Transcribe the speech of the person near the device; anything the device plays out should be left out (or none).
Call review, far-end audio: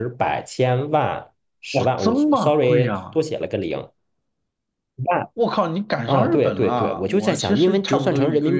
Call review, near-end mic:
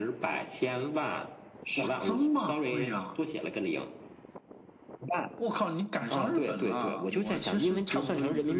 none